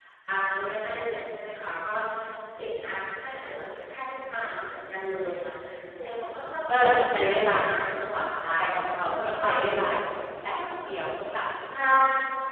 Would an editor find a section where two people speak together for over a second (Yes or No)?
Yes